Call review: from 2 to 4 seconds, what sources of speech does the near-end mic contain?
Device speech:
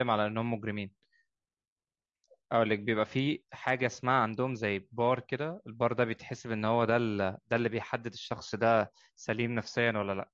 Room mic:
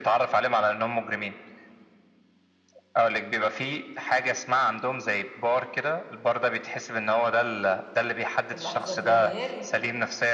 echo only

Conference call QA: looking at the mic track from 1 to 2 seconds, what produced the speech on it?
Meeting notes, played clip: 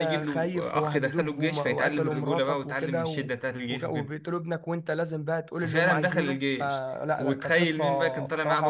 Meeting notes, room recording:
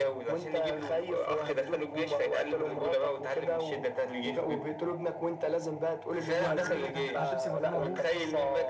echo only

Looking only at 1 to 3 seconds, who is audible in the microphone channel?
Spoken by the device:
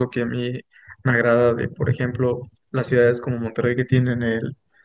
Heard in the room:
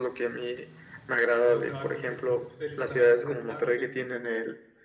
both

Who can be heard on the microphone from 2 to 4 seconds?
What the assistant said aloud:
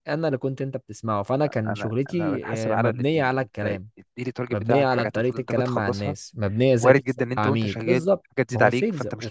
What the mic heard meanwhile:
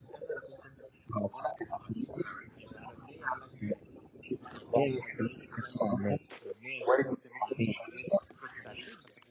echo only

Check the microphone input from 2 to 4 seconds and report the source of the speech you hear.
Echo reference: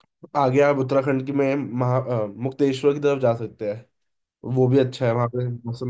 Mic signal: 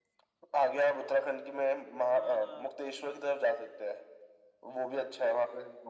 both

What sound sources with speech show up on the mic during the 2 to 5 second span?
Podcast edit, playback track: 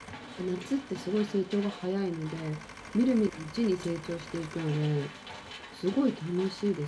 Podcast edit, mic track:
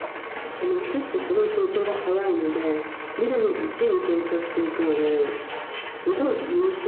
echo only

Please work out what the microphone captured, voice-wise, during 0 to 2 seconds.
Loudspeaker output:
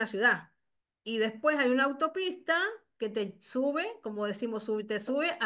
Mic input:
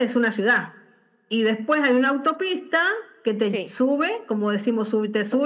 echo only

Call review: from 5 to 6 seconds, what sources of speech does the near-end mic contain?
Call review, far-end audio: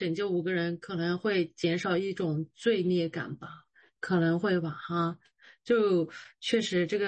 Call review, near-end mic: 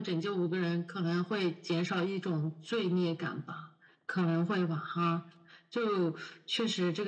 echo only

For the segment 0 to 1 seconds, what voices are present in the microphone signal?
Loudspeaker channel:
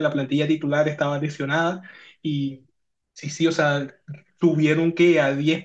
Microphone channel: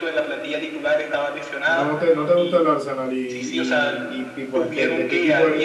echo only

